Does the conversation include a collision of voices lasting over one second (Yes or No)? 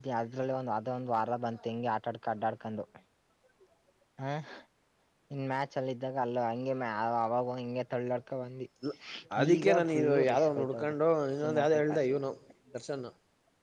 Yes